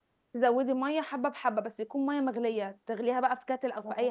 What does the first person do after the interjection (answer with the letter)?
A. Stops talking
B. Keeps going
A